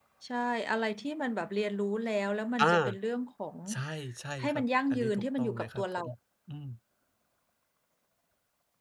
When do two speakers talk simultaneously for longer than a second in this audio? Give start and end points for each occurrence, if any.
4.4-6.0

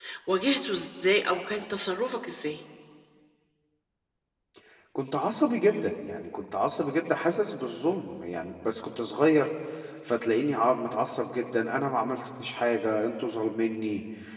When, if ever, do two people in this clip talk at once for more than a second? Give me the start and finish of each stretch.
none

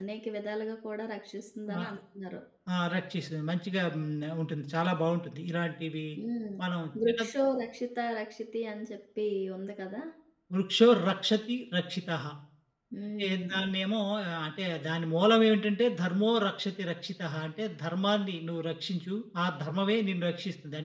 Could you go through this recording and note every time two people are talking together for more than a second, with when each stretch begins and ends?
none

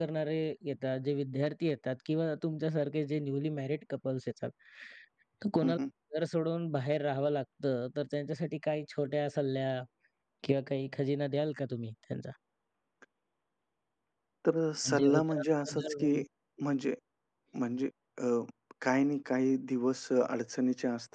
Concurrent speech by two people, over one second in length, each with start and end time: 14.8-16.1

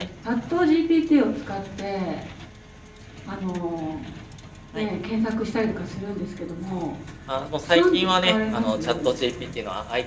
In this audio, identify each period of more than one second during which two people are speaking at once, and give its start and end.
7.7-9.1

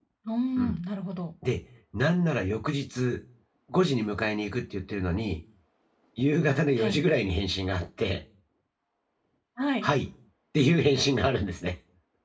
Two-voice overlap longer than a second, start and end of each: none

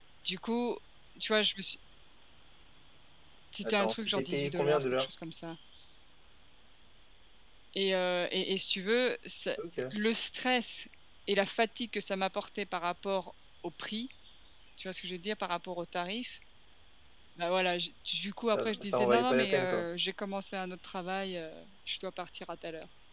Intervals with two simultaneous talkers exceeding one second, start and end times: 3.6-5.1, 18.5-19.9

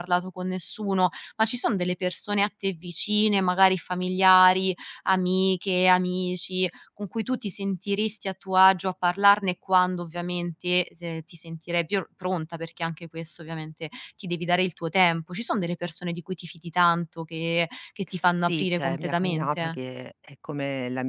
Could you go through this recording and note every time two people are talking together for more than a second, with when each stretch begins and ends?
18.4-19.8

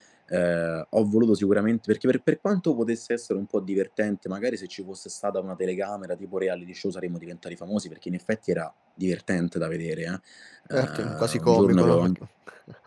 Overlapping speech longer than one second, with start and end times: 10.7-12.1

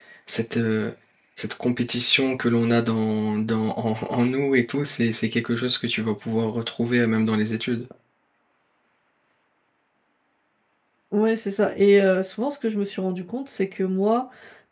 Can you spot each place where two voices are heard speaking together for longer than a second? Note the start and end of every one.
none

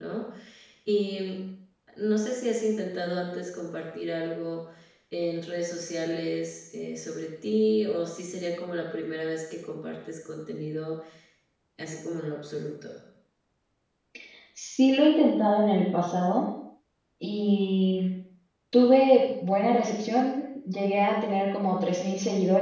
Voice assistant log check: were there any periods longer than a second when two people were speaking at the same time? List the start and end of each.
none

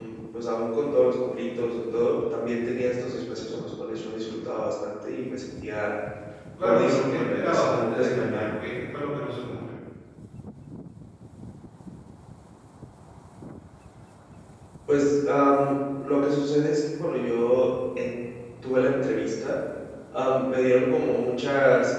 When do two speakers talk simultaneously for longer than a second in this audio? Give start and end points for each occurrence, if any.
6.6-8.6

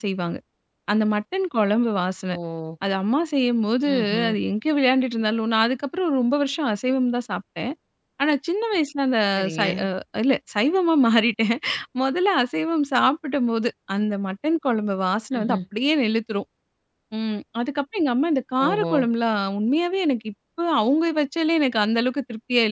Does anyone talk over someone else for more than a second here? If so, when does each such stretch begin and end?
none

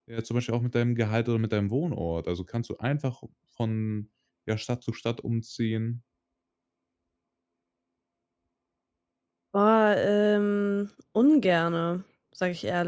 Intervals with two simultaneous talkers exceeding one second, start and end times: none

